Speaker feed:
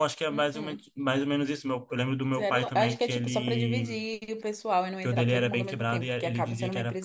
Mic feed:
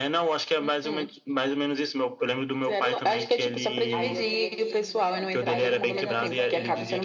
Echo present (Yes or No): Yes